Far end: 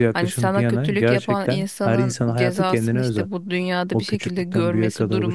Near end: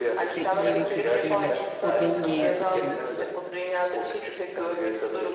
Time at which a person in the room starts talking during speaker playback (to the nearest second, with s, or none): 0 s